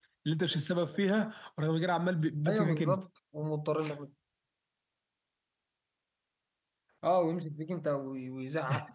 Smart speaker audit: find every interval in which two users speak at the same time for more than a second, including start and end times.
none

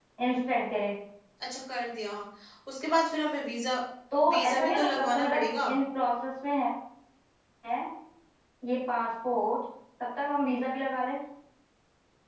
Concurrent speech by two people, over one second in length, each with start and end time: 4.3-5.7

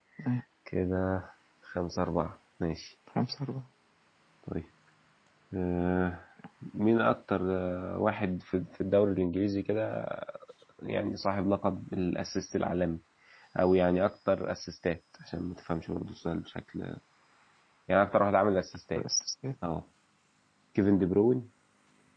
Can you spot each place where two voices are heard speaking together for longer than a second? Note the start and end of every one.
none

